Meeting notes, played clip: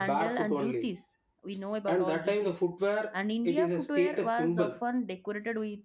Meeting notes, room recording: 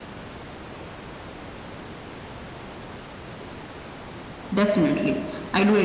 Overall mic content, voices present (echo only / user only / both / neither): user only